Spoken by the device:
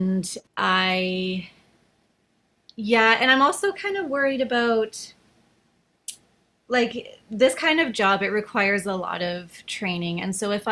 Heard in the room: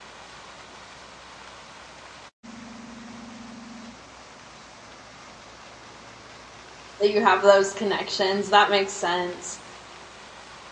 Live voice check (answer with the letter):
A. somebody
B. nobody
A